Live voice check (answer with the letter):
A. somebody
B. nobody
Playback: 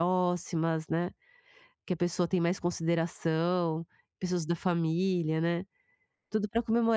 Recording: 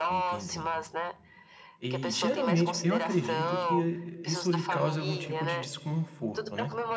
A